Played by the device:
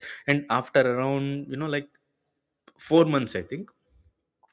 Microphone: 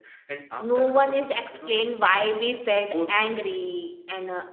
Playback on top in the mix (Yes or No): No